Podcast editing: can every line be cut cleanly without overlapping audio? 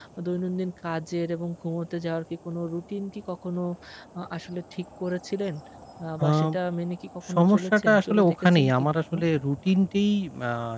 No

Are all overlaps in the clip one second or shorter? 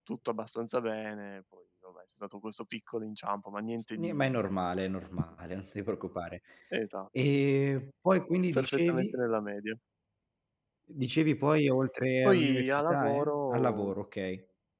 No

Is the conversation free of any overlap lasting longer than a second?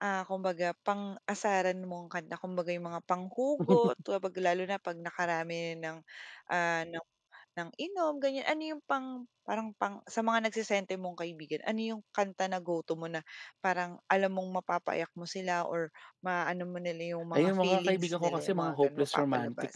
No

